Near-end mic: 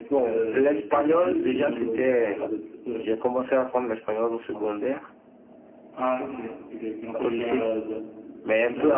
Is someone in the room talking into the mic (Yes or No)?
Yes